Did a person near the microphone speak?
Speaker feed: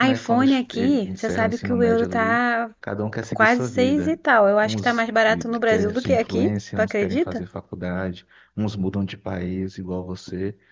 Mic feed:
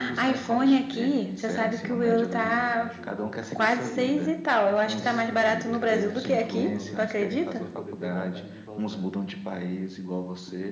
Yes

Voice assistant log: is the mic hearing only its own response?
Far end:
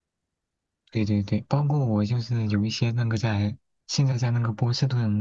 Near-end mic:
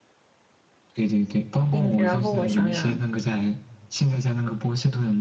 No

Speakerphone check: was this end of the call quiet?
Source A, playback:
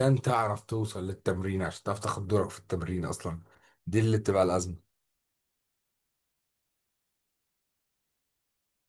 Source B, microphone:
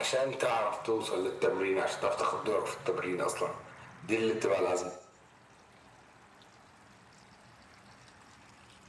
Yes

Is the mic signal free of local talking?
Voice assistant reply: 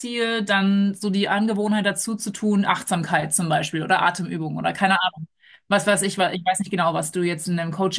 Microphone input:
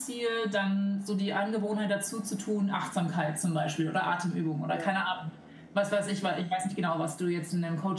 No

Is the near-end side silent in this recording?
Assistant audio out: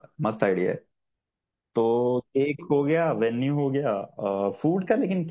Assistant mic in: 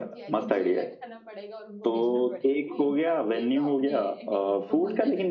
No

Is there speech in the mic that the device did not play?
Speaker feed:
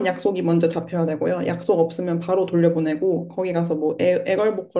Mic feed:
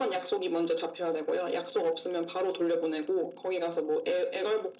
No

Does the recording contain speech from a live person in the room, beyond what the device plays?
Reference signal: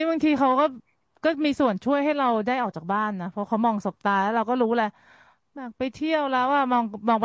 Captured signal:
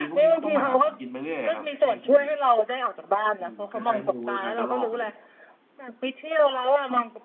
Yes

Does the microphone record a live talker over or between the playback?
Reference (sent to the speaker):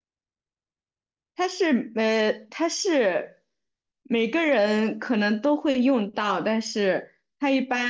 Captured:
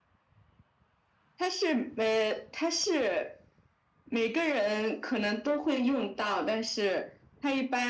No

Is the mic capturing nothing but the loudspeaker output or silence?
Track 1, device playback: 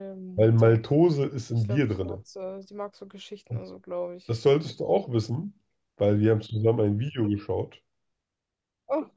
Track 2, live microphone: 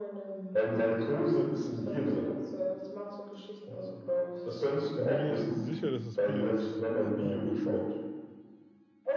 No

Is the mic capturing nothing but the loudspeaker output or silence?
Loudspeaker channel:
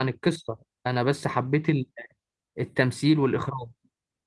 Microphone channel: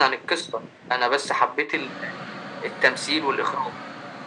Yes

